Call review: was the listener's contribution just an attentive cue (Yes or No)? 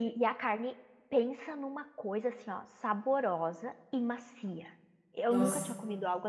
Yes